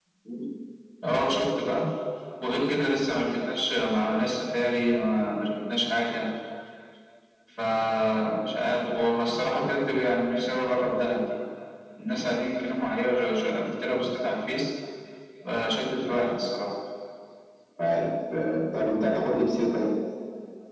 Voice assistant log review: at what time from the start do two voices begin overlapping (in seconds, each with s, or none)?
none